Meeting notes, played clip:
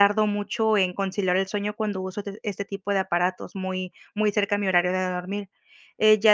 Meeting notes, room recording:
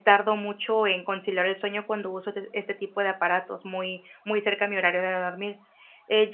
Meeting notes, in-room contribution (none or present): none